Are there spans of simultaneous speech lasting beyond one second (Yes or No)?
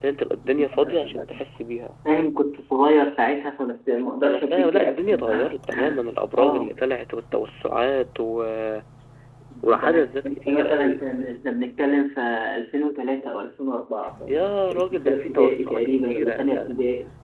Yes